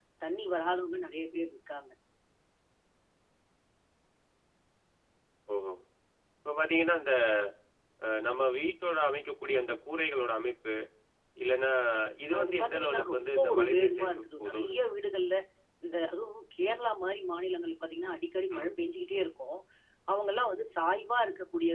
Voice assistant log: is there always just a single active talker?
No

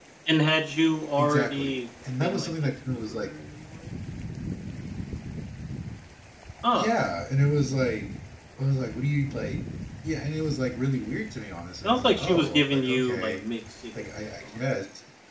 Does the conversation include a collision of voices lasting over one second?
Yes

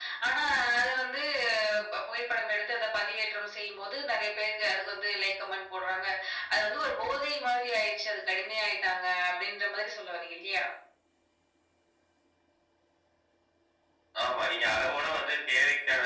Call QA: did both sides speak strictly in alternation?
Yes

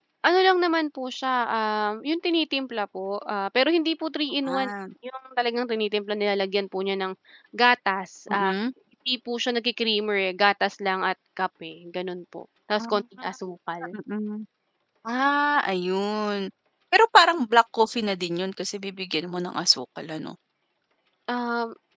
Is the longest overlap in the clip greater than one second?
No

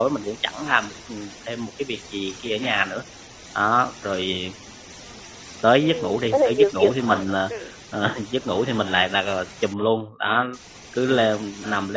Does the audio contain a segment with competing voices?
Yes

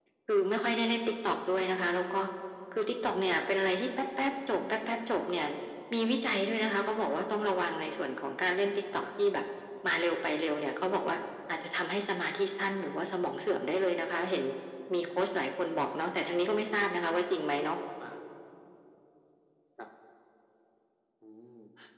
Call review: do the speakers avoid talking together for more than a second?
Yes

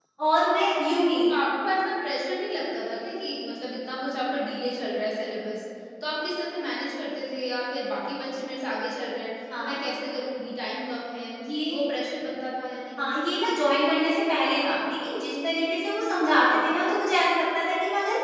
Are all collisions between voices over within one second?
Yes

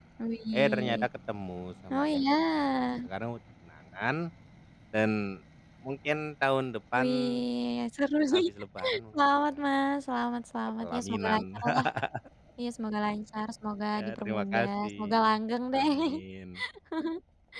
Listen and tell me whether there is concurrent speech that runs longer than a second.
Yes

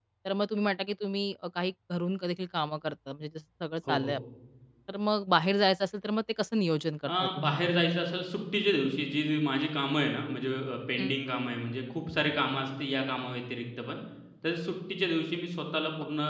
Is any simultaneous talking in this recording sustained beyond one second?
No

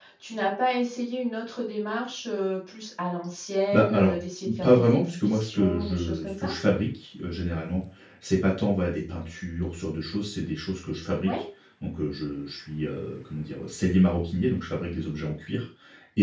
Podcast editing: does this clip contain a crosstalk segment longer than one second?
Yes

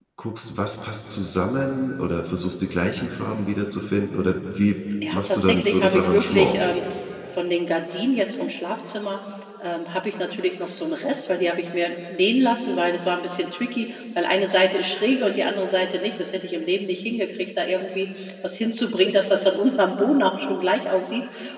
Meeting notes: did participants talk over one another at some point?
Yes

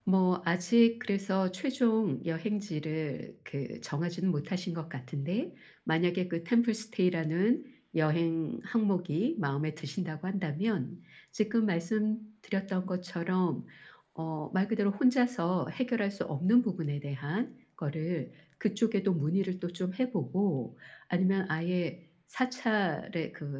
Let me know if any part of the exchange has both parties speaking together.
No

